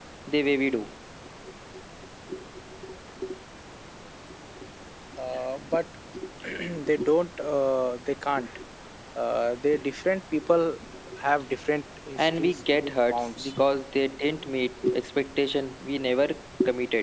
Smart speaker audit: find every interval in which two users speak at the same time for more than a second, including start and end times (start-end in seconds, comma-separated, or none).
12.2-13.5